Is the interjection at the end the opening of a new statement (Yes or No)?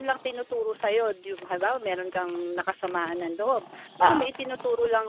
No